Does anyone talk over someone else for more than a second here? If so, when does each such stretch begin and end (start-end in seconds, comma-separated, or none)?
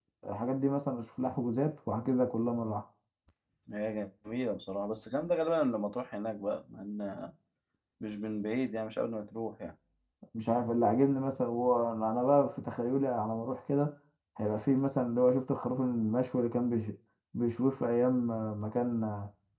none